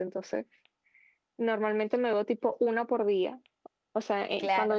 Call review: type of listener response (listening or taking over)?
listening